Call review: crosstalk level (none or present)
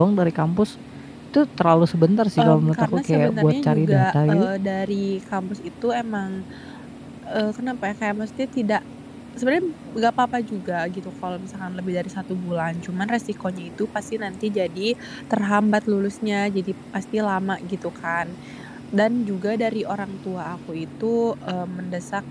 present